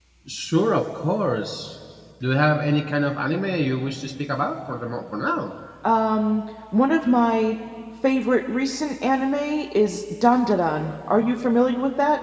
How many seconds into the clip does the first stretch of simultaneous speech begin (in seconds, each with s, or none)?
none